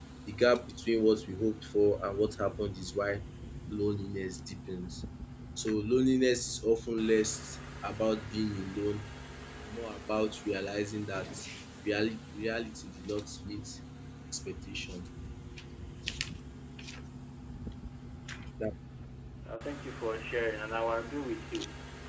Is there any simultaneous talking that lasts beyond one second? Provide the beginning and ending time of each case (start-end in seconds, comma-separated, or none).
none